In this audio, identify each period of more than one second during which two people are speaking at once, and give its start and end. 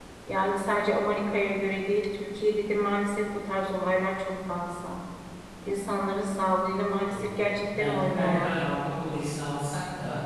7.0-8.6

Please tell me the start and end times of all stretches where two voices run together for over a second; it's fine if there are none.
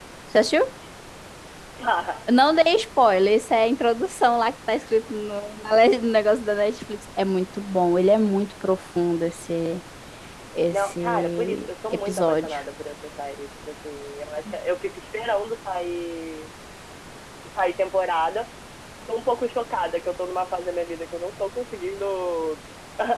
10.7-12.6

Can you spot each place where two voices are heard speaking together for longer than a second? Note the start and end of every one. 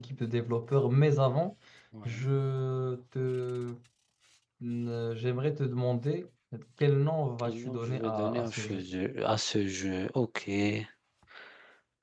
7.4-8.8

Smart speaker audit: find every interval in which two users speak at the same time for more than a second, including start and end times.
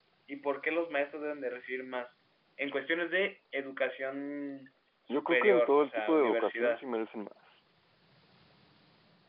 5.1-6.8

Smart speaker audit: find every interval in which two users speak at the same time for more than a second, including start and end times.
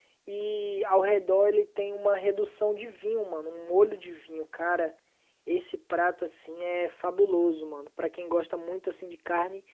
none

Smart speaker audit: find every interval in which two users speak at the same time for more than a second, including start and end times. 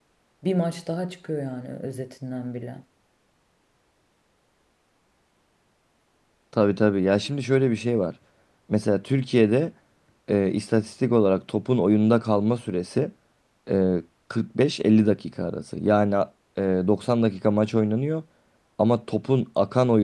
none

